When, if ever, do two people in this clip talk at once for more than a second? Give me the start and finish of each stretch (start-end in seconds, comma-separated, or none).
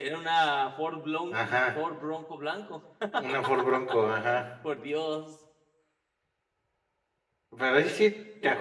none